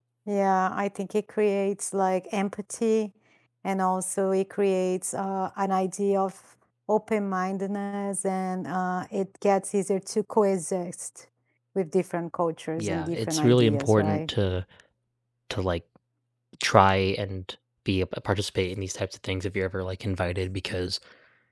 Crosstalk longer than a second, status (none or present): present